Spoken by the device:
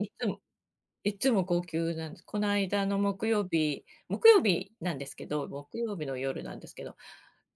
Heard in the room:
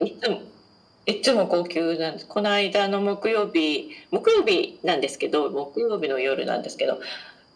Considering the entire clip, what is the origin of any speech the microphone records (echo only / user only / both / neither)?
echo only